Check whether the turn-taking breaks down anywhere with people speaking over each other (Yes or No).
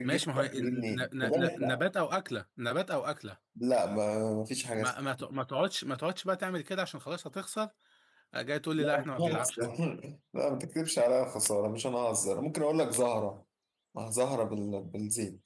Yes